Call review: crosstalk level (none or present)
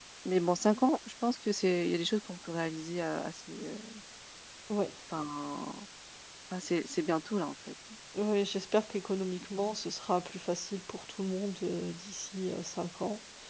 none